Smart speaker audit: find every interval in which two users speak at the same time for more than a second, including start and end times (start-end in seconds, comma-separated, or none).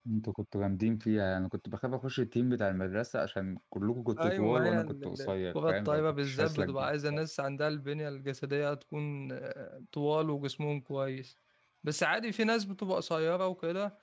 4.2-6.9